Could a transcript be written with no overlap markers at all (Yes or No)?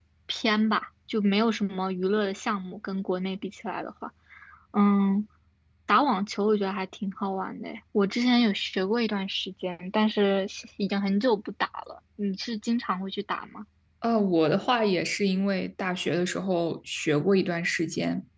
Yes